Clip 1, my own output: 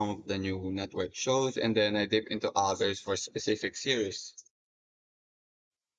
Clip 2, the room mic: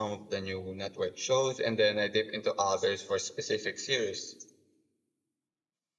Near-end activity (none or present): none